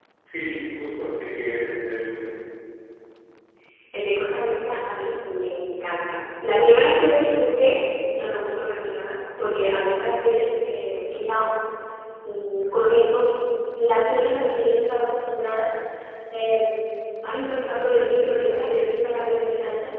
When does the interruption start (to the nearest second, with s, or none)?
none